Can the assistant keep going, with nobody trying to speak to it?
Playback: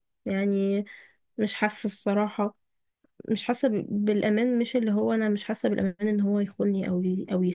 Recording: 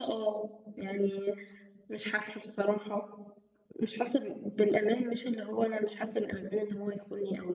Yes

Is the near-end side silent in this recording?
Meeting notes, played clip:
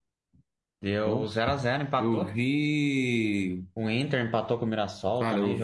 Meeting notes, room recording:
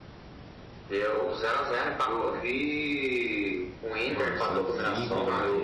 No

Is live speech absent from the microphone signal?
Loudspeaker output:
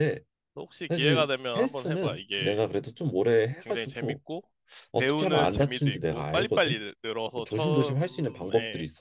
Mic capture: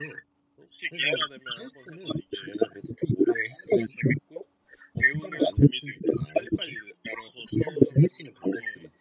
Yes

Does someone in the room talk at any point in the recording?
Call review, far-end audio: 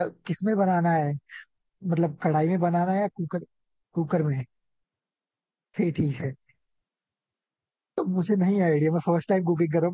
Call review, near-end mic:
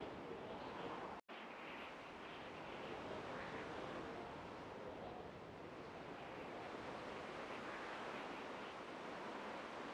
No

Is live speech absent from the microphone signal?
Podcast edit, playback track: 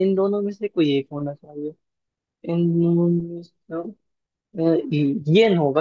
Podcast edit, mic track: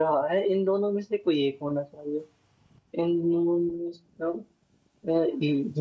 Yes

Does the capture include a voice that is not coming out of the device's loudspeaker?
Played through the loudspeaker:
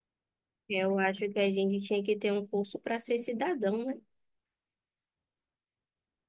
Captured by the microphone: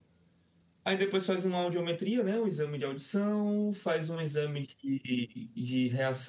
Yes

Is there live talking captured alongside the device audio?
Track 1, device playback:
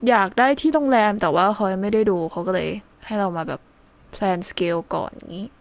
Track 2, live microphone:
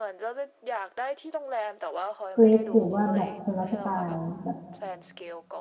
Yes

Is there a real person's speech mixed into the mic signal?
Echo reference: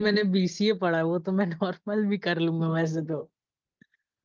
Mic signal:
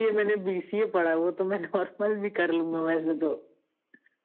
No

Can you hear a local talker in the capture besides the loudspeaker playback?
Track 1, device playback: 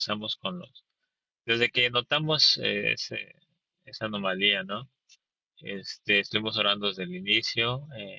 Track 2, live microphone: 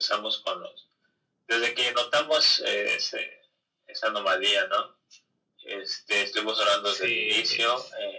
Yes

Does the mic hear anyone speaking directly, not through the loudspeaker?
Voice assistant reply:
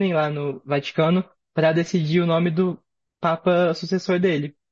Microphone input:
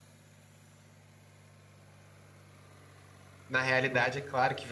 Yes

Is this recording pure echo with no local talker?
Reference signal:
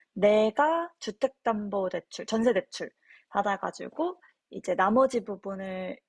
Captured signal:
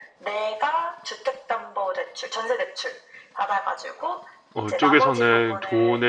No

